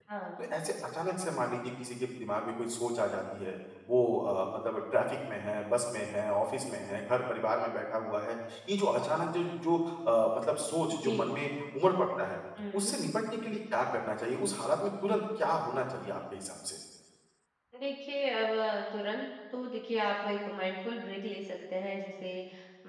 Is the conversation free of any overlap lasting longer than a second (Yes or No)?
Yes